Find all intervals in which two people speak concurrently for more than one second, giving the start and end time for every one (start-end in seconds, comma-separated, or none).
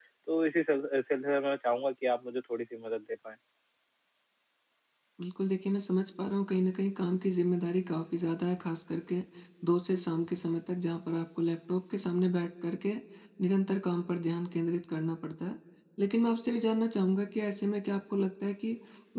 none